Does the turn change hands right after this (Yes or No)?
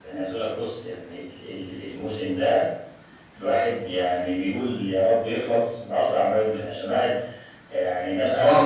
No